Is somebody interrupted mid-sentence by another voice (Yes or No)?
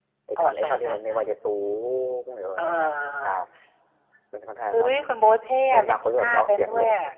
Yes